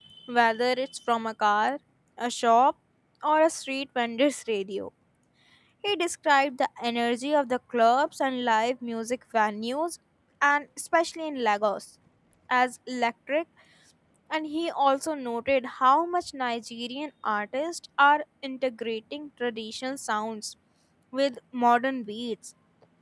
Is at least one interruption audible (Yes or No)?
No